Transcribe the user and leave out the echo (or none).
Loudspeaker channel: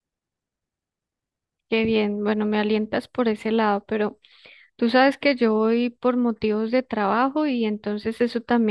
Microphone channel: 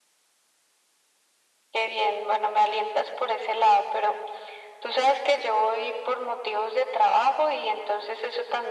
none